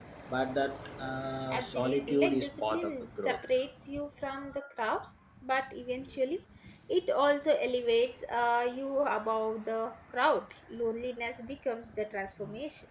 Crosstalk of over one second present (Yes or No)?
Yes